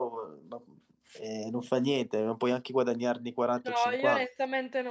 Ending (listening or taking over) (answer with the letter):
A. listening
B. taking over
B